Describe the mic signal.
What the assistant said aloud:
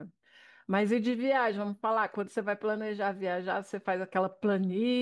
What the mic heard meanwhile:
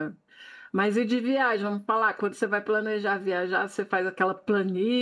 echo only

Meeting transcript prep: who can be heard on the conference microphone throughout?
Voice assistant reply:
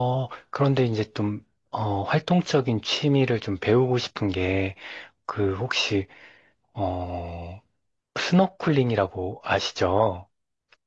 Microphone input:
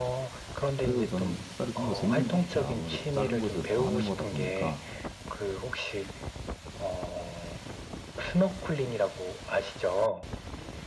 both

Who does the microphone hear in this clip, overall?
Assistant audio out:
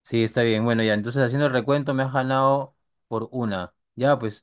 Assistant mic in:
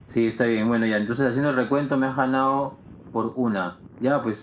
echo only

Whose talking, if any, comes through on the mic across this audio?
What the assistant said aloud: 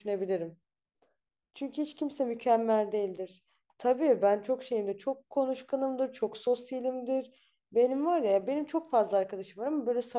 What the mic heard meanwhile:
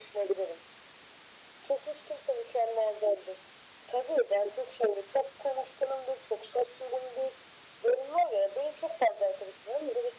echo only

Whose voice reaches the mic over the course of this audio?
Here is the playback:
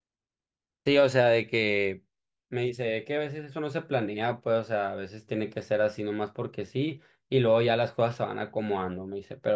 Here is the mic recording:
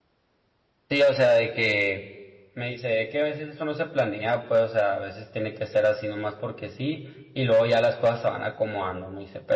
echo only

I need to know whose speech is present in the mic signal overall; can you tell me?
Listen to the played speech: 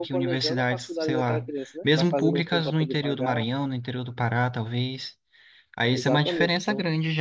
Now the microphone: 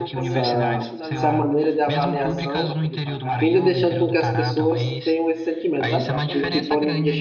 both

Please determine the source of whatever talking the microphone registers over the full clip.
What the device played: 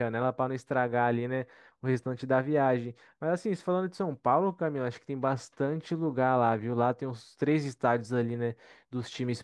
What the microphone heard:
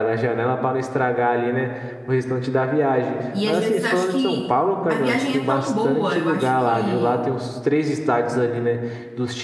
both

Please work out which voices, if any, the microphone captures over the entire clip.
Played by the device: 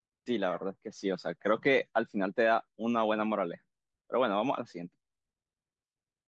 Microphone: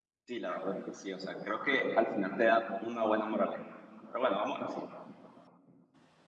echo only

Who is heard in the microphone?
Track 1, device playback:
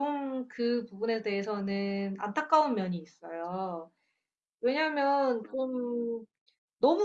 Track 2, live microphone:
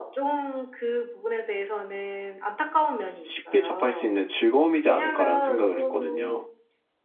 both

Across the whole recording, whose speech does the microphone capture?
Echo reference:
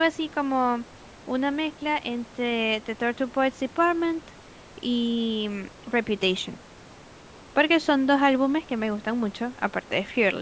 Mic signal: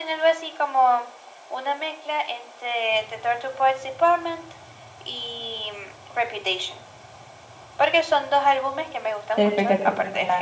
both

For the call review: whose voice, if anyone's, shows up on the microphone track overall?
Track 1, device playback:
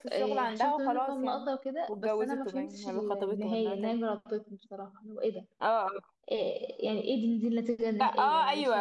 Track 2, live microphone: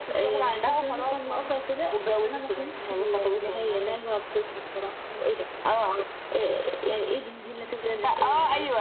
echo only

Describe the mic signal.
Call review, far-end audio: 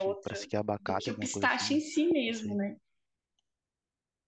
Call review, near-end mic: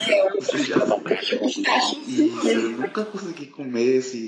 both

